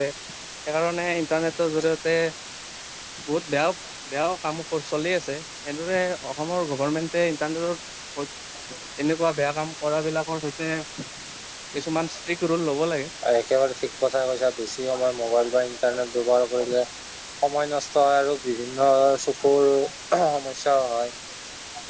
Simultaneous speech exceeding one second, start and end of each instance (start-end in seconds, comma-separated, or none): none